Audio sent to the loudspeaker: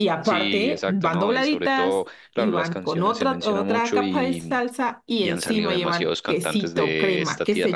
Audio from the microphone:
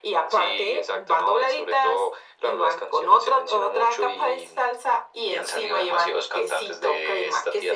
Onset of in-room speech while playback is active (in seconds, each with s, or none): none